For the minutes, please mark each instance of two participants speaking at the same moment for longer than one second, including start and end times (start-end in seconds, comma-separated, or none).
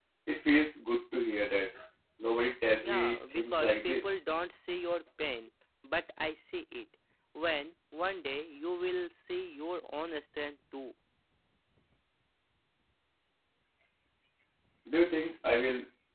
2.8-4.1